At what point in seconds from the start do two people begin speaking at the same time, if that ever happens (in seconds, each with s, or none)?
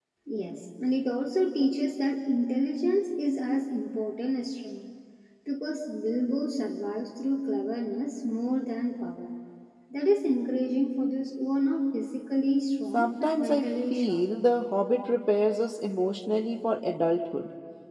12.9 s